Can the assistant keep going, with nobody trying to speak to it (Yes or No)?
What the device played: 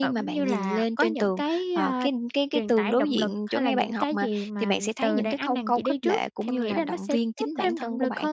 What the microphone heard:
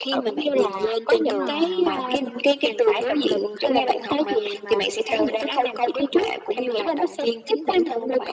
No